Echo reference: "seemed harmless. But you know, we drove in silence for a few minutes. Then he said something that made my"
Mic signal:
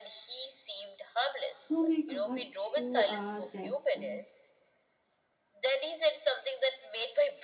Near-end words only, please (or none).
Oh my god, you are just. uh,